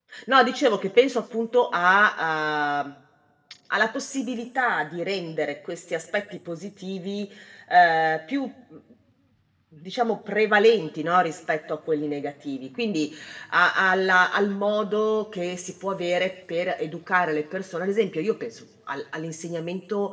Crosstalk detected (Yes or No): No